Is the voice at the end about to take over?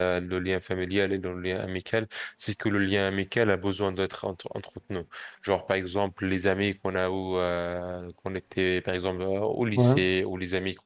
No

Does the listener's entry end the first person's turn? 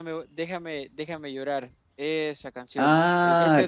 Yes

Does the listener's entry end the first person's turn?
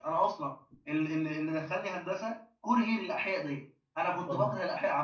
No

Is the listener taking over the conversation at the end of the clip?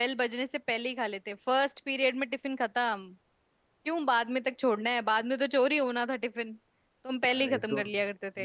Yes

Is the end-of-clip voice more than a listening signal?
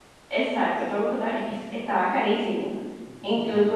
No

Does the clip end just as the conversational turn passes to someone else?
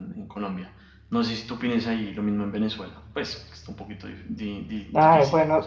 Yes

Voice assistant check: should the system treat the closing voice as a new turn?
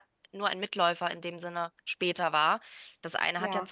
No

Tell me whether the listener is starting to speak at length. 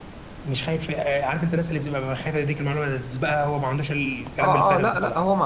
Yes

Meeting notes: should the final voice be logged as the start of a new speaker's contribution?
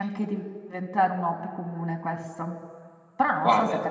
No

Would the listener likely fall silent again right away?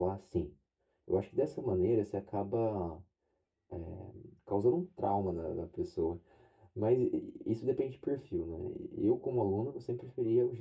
Yes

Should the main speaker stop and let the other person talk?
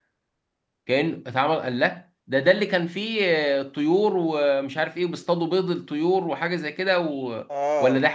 Yes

